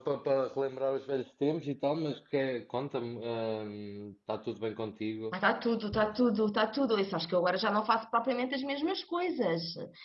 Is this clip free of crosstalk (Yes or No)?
Yes